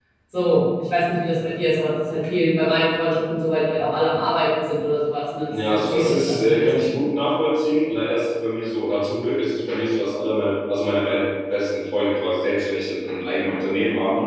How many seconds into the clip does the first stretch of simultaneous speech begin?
5.5 s

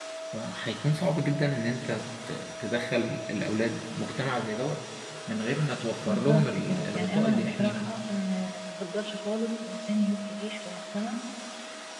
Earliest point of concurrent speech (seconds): 6.0 s

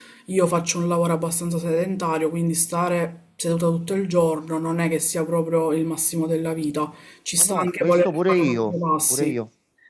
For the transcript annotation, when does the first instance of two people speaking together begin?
7.4 s

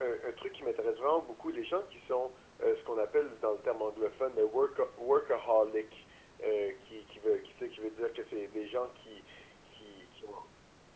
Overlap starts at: none

